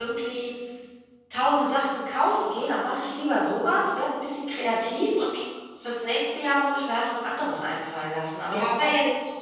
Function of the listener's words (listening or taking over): taking over